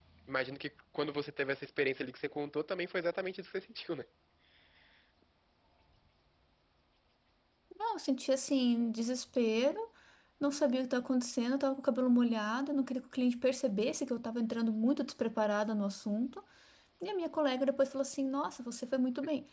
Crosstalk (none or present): none